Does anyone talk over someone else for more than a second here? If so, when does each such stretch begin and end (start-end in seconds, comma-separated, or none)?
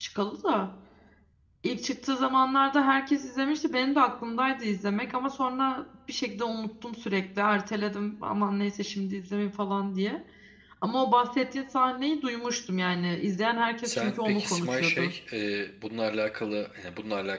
13.8-15.1